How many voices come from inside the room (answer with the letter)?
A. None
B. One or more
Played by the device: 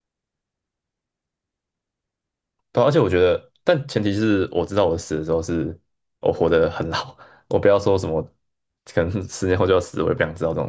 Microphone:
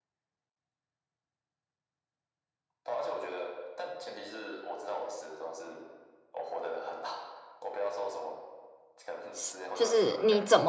B